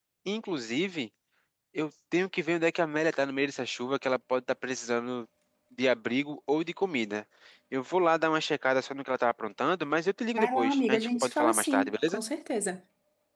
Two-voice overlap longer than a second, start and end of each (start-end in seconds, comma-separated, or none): 10.4-12.2